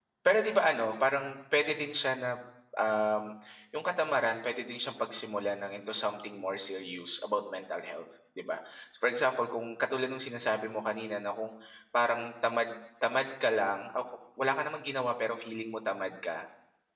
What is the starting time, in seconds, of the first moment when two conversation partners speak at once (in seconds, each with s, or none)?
none